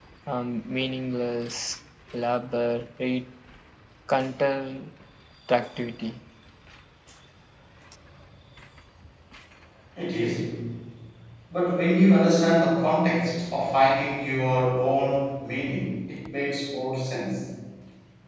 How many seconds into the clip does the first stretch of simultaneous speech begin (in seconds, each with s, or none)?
none